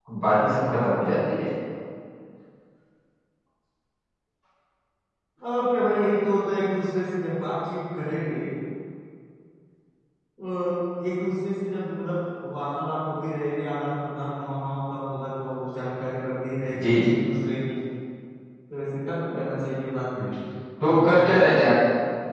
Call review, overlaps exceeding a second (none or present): none